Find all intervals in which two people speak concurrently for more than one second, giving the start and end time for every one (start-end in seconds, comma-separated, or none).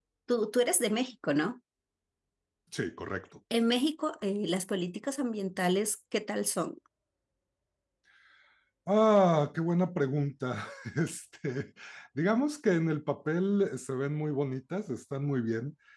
none